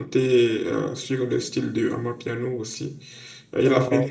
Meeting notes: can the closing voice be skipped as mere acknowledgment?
Yes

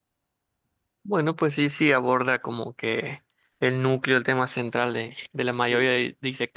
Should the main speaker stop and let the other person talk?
No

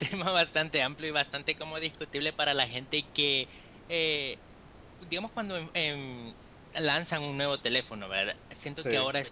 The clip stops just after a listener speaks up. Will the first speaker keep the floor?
Yes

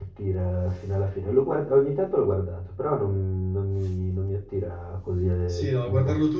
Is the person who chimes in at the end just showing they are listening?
No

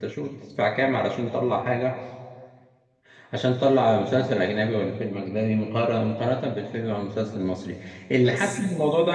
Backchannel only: Yes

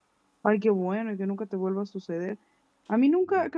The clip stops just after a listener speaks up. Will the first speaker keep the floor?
Yes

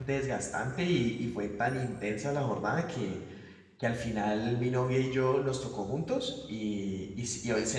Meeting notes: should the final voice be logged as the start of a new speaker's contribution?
No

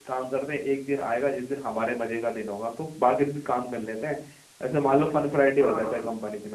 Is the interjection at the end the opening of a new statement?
No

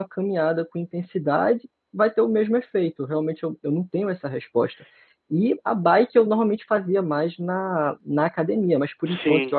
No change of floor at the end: Yes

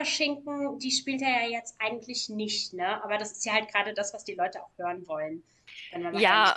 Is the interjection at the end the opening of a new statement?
Yes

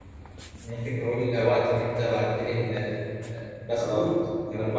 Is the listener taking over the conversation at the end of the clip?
No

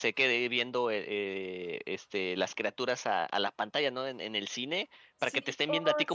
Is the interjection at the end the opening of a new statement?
No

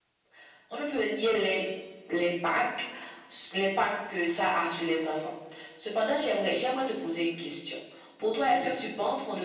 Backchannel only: Yes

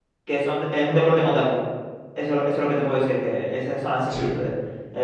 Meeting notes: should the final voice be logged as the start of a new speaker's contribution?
No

